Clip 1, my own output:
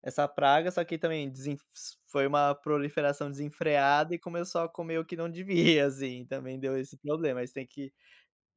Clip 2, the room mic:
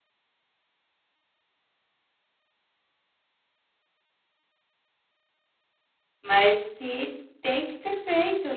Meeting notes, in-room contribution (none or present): present